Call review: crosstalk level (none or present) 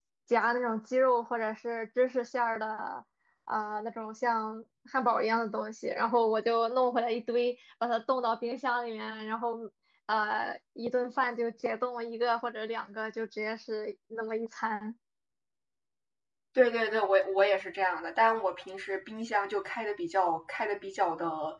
none